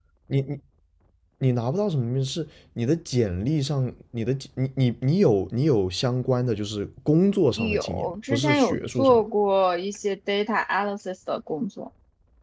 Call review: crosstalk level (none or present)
present